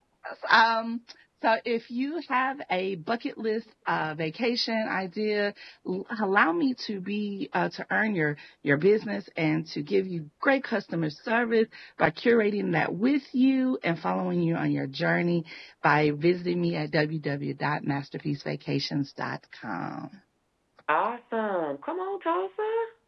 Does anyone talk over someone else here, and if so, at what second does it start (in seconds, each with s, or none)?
none